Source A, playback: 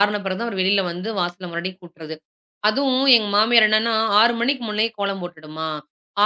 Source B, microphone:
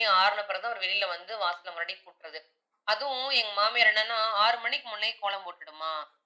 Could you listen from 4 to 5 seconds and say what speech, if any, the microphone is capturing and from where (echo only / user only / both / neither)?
echo only